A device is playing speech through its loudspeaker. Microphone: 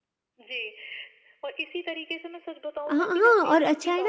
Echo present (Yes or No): Yes